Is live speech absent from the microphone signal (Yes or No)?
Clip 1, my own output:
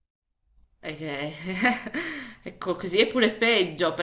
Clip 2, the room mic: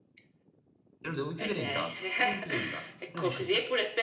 No